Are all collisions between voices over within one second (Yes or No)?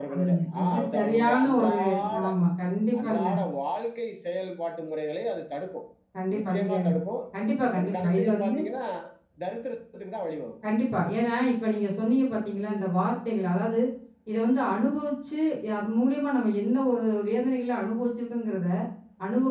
No